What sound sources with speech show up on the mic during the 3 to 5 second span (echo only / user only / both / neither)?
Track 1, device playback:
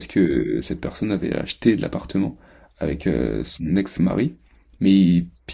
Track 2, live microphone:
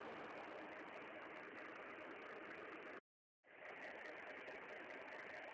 neither